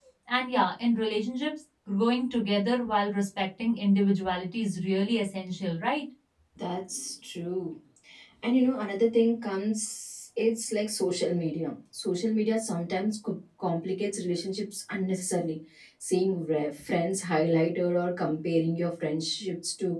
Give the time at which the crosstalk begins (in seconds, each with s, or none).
none